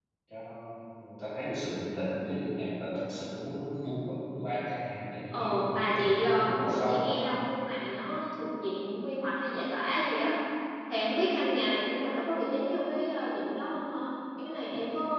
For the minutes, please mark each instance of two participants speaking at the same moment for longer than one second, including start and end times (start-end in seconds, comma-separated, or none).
5.3-7.1